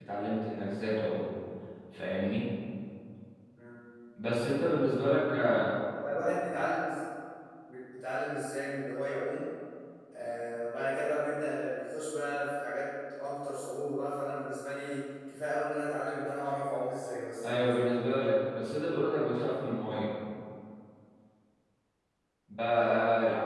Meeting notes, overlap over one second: none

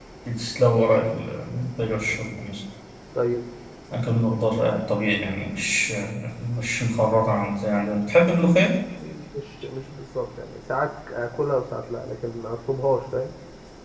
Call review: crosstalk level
none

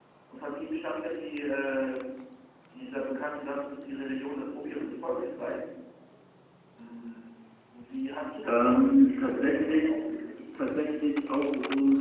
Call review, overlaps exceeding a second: present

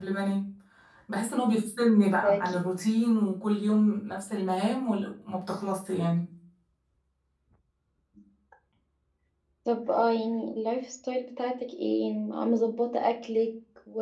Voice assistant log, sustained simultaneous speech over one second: none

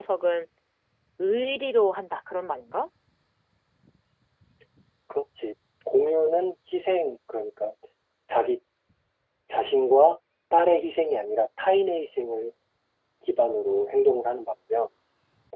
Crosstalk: none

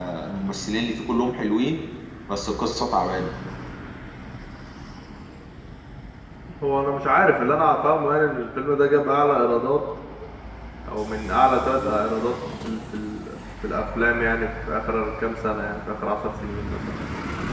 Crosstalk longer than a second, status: none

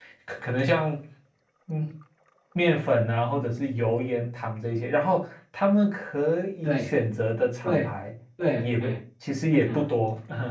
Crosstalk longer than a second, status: none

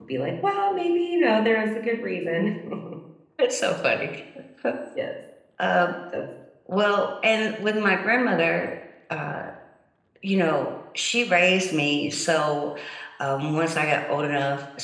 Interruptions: none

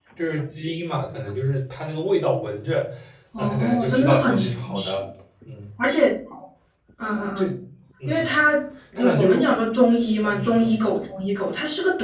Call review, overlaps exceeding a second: present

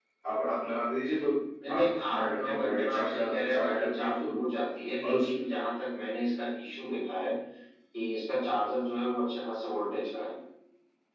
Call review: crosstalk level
present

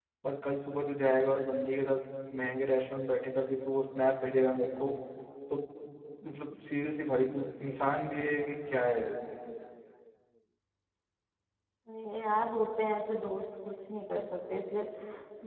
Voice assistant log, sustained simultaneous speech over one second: none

